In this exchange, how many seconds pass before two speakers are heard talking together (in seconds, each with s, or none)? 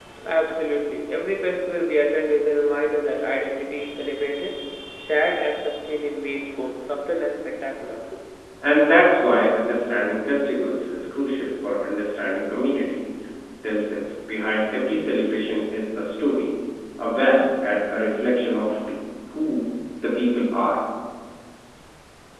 none